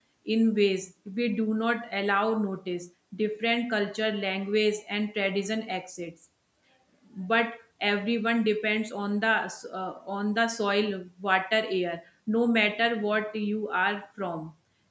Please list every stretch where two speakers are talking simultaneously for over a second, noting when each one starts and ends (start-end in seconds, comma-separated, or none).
none